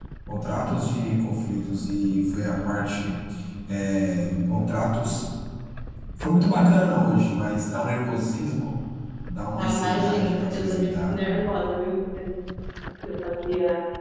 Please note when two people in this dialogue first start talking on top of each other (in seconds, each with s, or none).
9.6 s